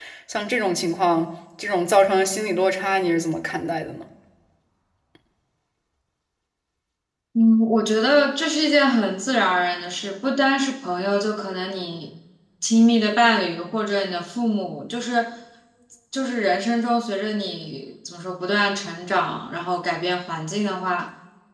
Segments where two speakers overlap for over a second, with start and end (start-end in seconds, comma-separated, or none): none